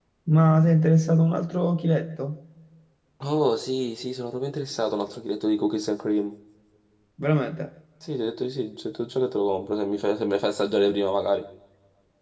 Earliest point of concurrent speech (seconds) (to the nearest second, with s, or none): none